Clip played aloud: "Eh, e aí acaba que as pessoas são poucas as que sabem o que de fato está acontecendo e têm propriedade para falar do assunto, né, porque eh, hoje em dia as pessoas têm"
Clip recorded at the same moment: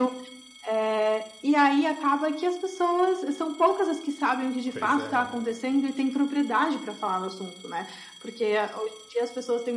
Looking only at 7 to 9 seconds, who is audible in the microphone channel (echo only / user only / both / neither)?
echo only